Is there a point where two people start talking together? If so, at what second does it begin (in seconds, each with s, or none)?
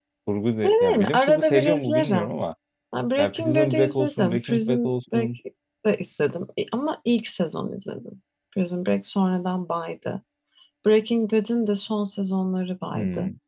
0.6 s